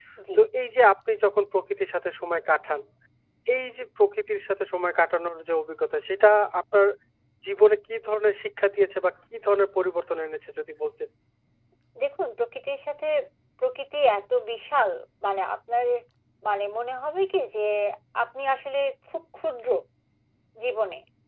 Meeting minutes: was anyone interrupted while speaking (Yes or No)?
No